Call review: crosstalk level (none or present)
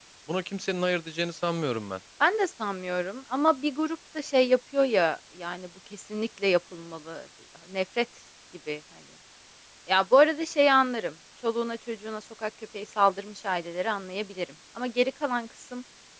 none